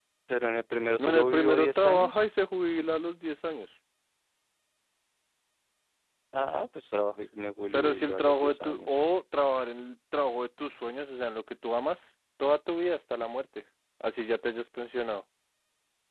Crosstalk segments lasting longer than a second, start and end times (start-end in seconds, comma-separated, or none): 1.0-2.2, 7.7-9.0